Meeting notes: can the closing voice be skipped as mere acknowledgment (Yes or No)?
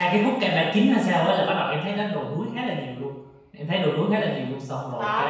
No